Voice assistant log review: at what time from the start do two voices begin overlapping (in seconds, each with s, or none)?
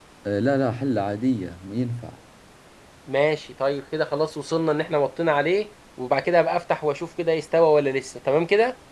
none